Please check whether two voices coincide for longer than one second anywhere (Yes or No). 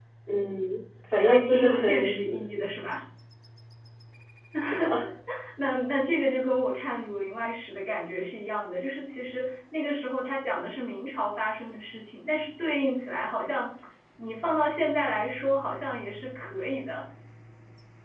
Yes